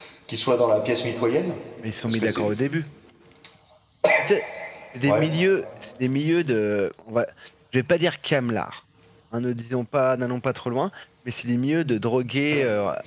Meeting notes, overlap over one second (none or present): none